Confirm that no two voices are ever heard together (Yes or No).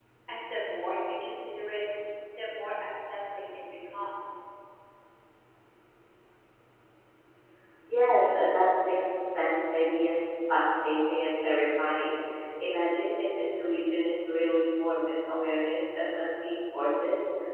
Yes